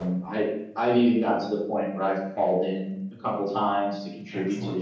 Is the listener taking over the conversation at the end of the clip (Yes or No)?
No